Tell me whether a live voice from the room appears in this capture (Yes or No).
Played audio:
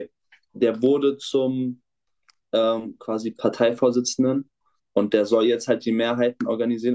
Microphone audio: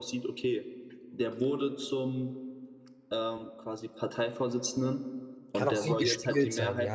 Yes